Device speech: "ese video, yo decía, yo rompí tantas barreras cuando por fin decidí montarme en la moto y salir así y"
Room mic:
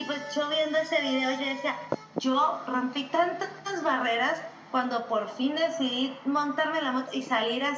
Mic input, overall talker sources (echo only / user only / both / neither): echo only